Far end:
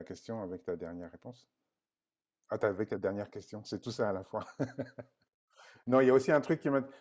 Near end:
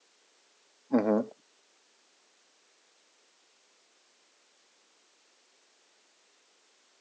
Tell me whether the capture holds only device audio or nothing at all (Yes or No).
No